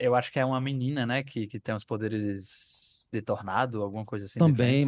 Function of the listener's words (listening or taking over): taking over